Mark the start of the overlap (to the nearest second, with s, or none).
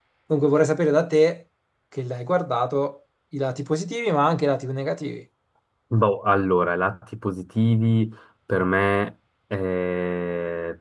none